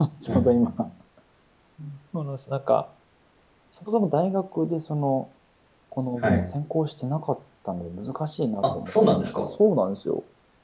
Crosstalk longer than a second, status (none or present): none